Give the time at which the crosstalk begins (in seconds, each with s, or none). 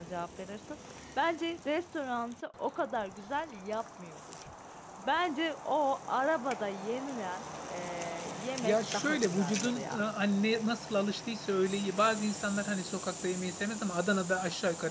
8.6 s